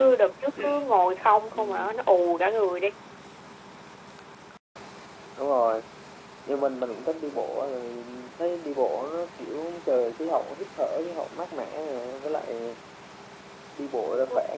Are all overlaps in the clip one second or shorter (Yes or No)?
Yes